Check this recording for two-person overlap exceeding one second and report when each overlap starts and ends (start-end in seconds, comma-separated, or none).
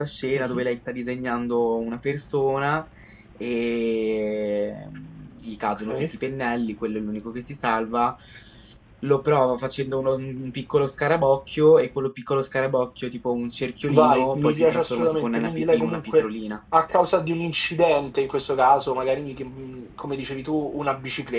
13.9-16.2